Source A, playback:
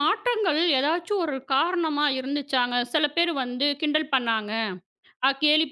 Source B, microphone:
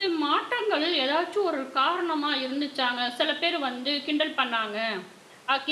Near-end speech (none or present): none